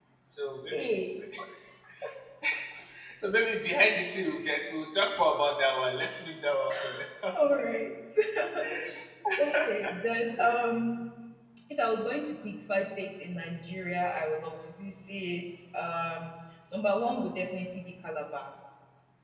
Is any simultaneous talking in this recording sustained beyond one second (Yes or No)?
No